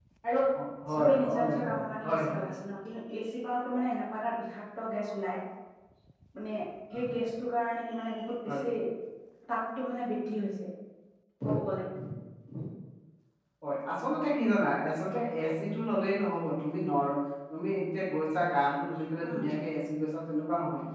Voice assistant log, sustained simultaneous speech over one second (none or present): present